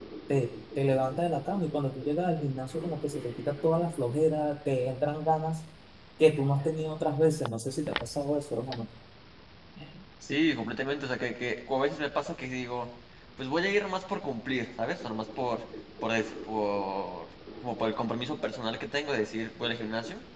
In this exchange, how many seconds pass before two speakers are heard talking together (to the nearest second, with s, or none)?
none